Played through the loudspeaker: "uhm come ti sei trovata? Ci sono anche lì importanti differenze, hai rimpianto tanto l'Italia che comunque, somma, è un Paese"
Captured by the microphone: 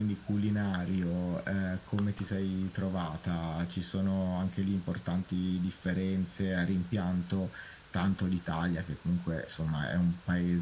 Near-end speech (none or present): none